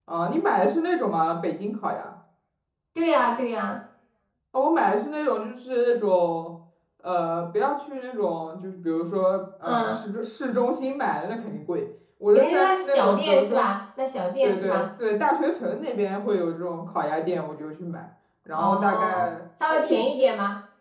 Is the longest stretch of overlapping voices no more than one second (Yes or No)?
No